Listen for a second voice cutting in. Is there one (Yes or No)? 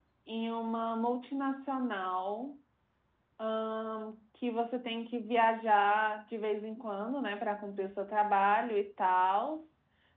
No